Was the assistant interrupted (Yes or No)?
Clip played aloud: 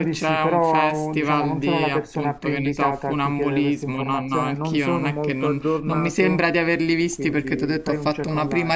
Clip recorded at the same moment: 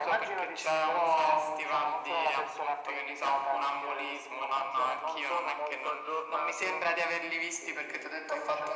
No